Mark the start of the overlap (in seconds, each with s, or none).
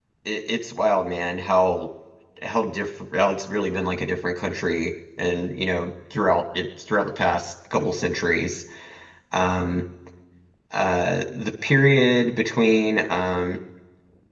none